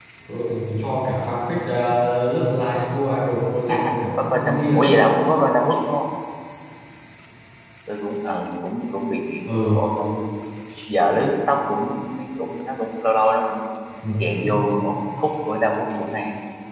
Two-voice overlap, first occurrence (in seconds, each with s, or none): 3.7 s